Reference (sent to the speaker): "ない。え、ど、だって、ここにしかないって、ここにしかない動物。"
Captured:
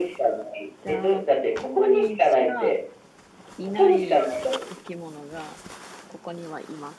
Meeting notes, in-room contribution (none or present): present